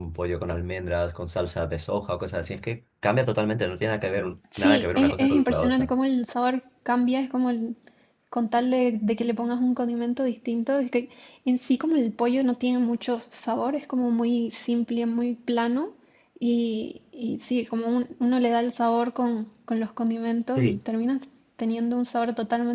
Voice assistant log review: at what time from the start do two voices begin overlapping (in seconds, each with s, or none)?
4.6 s